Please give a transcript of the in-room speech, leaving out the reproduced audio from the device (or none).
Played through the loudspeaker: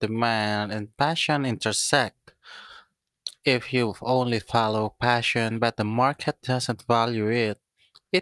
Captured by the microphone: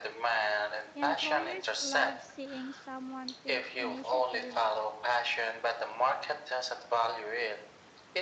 Employers love seeing someone take initiative